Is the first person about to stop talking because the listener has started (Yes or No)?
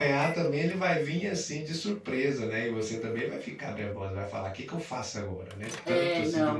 Yes